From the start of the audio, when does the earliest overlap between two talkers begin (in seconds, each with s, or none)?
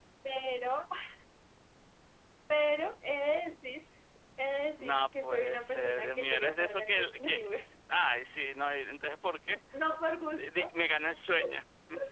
4.8 s